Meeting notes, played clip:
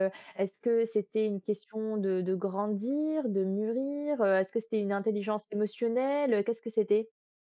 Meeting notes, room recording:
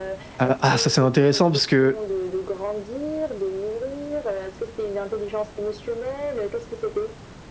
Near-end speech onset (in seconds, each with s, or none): 0.4 s